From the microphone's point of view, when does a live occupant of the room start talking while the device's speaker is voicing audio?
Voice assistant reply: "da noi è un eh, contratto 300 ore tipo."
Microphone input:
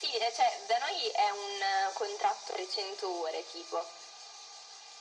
none

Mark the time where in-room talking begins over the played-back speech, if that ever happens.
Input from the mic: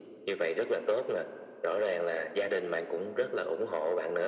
none

